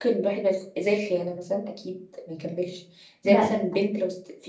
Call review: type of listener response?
listening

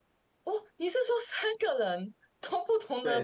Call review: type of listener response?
taking over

